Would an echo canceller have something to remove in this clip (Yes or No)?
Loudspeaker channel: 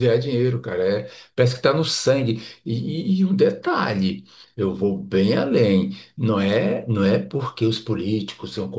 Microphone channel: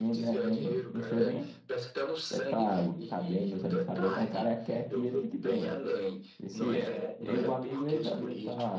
Yes